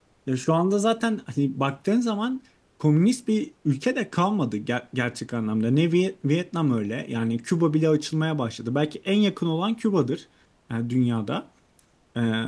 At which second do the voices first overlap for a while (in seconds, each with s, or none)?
none